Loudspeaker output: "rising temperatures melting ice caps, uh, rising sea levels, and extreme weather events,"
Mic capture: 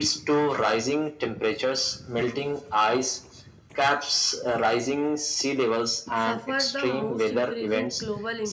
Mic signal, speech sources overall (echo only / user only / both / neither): both